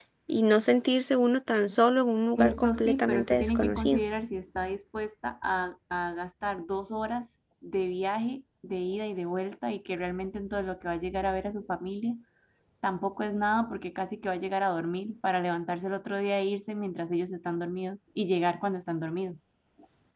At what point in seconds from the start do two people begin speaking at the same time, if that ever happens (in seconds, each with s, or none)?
2.4 s